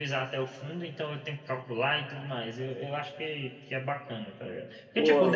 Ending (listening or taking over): listening